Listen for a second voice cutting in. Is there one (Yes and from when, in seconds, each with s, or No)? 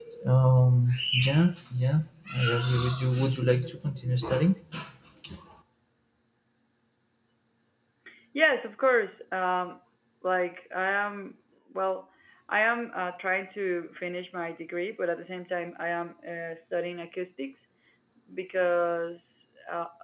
No